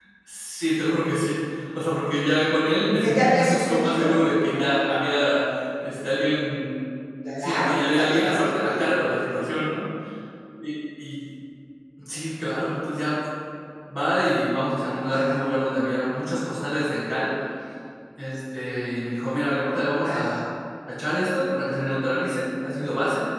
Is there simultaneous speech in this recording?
Yes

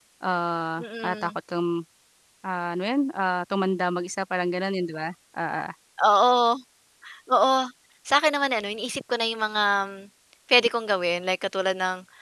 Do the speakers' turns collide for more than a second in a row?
No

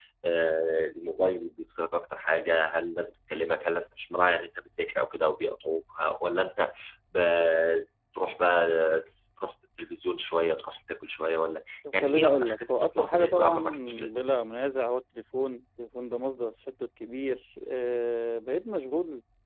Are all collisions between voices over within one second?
No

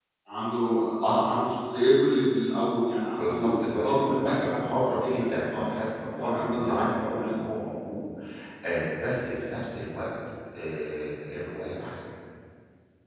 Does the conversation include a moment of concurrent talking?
Yes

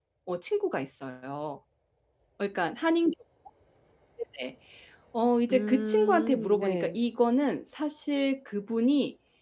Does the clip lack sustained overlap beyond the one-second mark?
No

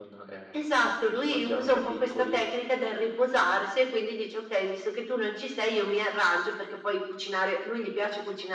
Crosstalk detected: Yes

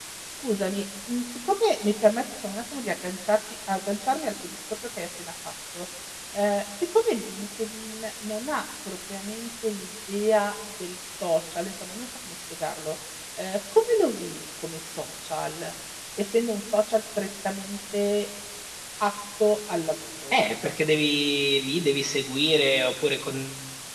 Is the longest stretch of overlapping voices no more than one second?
Yes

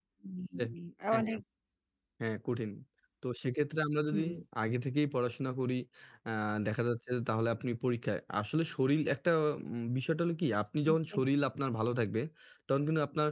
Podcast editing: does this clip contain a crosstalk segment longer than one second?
No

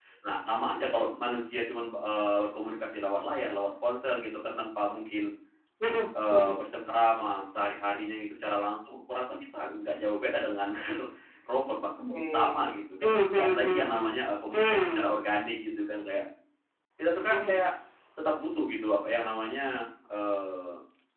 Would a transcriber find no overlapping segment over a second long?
No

